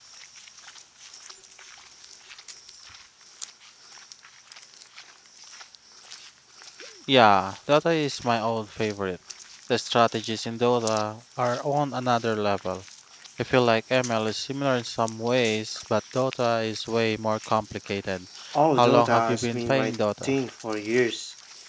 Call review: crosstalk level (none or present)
present